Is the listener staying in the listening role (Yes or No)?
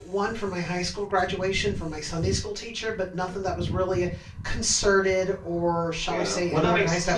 No